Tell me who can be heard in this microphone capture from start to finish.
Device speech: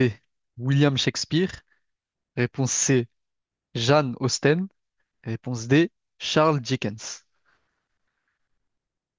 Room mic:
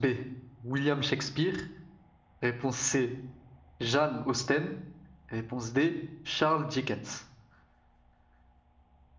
echo only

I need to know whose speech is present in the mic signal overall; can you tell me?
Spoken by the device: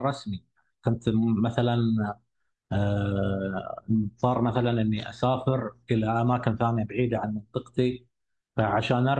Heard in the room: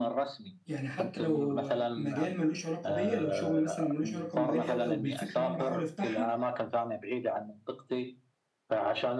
both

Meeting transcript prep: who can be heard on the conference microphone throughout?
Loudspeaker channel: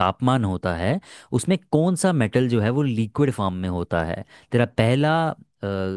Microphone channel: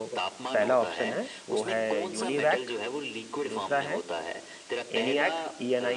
both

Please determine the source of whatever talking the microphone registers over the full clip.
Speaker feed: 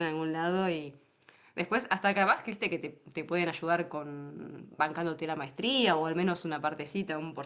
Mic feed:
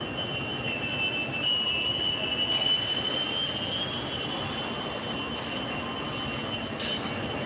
neither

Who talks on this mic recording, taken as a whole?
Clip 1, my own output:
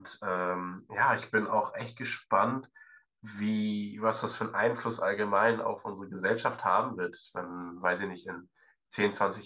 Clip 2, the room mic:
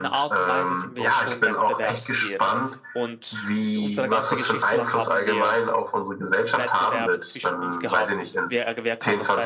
both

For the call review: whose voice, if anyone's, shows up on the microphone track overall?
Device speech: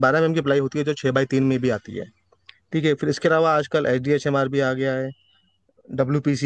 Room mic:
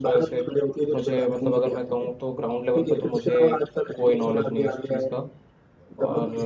both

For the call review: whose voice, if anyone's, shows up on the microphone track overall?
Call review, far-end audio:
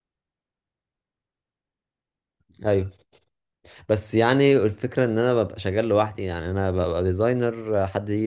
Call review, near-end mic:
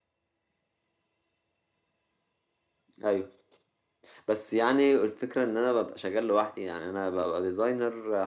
echo only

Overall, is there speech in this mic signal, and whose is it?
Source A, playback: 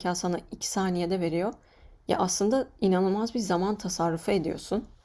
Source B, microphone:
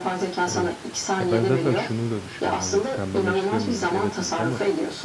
both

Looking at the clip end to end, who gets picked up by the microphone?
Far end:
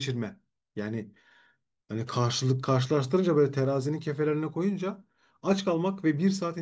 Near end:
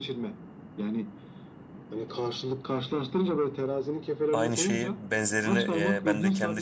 both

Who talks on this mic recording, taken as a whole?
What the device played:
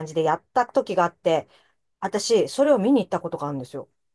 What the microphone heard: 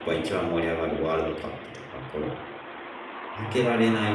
user only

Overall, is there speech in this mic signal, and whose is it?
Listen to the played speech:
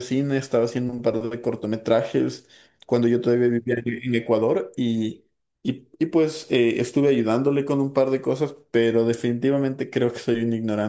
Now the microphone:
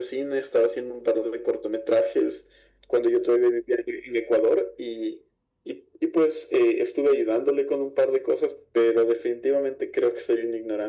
echo only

